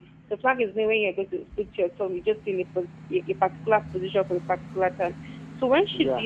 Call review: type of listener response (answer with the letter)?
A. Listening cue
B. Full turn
A